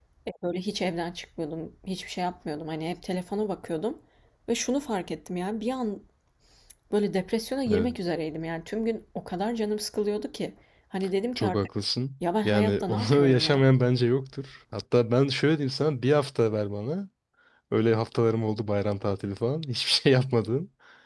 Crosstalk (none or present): present